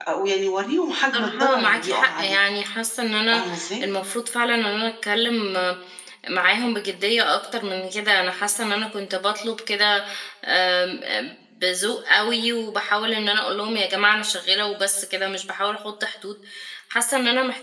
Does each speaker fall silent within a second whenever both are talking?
No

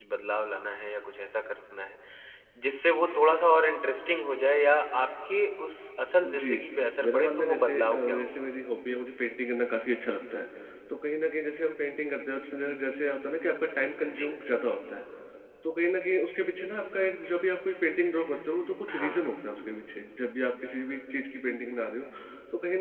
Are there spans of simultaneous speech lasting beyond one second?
Yes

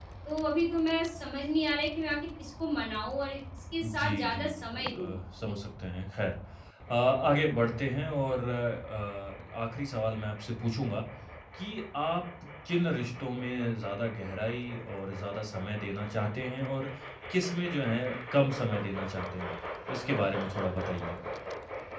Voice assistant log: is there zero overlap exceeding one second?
No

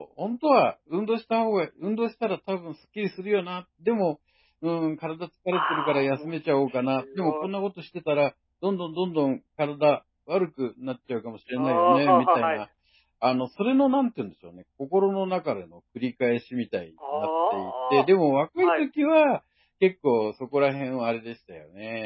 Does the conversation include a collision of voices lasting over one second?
Yes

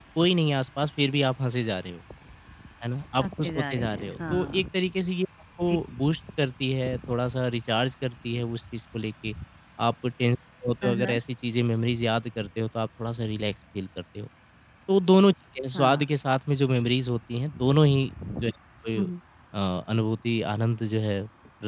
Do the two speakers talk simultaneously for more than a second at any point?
Yes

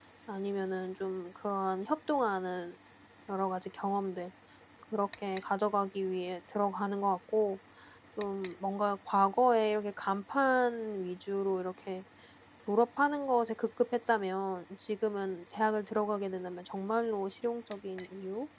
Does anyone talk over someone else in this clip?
No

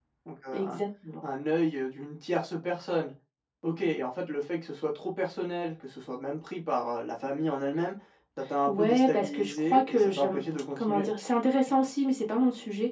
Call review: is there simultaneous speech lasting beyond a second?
Yes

